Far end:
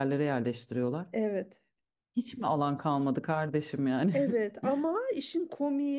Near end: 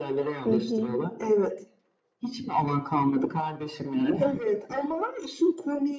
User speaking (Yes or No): Yes